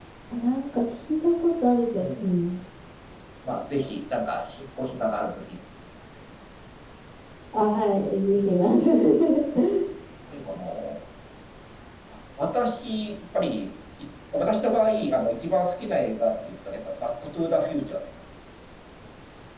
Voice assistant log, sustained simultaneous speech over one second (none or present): none